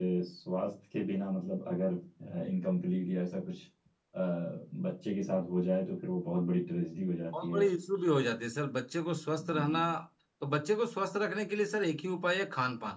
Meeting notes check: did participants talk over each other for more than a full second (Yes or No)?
No